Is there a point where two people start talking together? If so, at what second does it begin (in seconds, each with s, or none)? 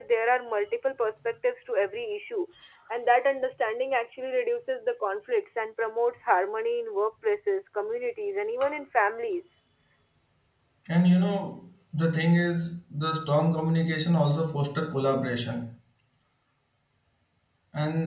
none